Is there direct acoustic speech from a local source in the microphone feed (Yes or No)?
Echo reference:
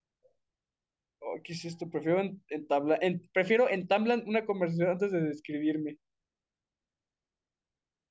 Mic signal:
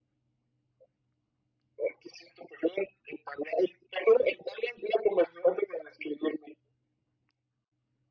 No